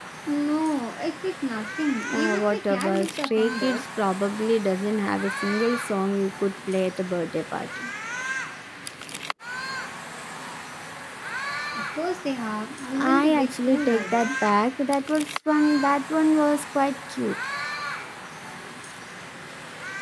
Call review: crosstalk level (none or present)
present